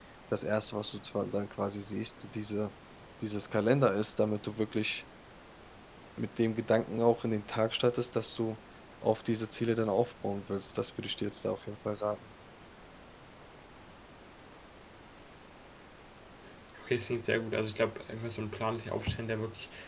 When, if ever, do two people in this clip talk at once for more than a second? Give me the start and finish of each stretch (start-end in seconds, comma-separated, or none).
none